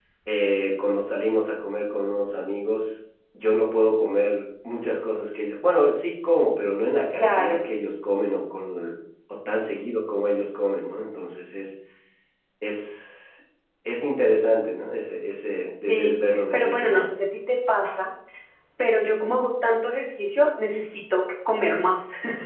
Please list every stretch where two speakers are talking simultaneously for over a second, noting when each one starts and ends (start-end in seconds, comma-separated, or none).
15.9-17.1